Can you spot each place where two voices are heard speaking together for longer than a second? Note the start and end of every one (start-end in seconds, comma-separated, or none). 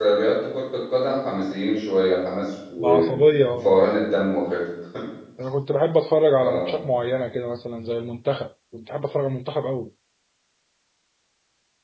none